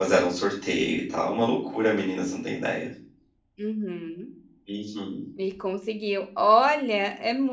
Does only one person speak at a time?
Yes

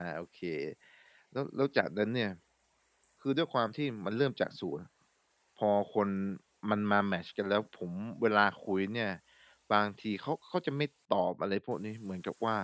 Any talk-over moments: No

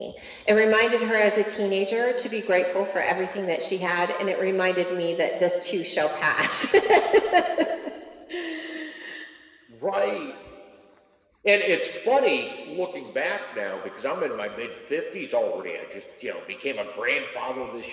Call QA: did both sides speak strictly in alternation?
Yes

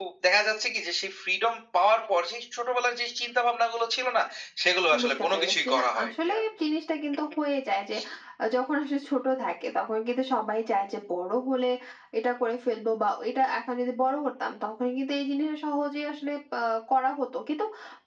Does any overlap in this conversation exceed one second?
Yes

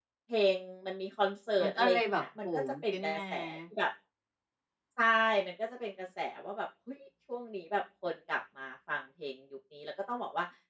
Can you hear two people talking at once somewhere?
Yes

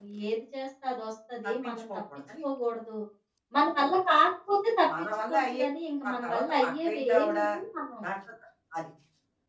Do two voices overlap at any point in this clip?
Yes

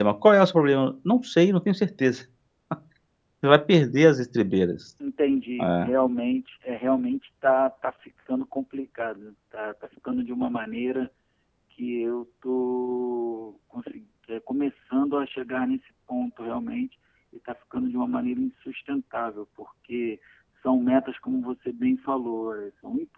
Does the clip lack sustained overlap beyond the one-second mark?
Yes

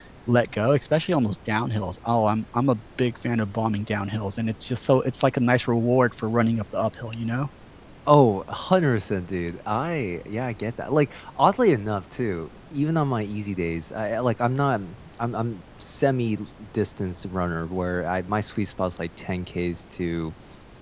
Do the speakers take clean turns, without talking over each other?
Yes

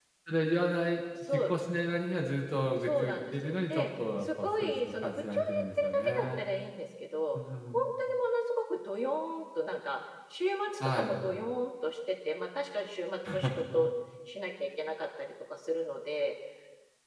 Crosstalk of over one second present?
Yes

